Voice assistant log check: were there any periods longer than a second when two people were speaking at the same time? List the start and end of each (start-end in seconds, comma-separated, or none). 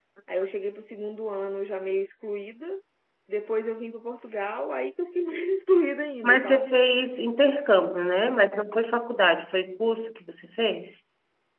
none